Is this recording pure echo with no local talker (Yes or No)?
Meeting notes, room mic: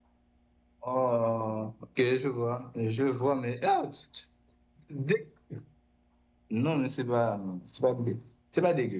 Yes